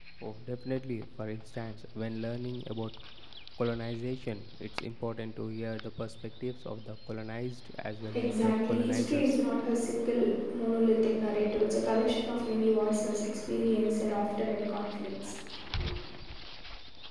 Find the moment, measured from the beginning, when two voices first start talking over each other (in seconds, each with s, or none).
8.0 s